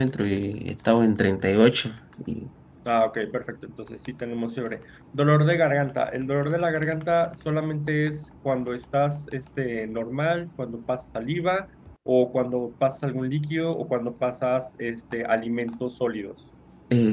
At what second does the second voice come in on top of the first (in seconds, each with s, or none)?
none